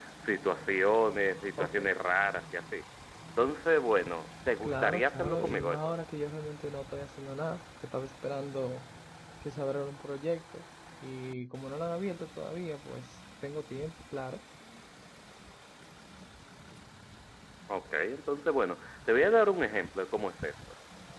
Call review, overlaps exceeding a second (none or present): present